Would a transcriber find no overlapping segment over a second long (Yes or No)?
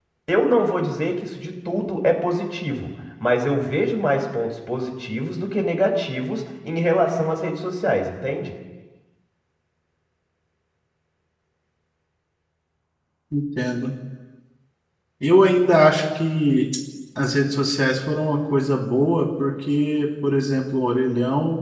Yes